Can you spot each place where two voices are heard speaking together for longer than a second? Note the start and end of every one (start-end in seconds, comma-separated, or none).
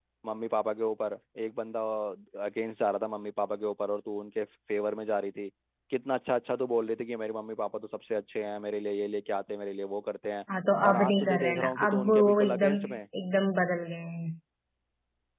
10.9-12.7